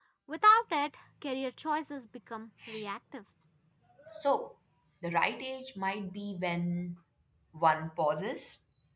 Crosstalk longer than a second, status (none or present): none